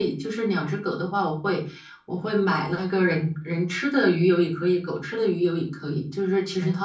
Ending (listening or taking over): listening